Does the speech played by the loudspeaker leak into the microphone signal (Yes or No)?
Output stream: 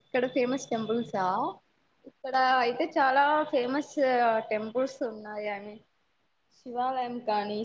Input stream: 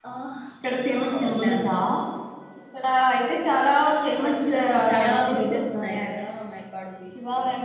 Yes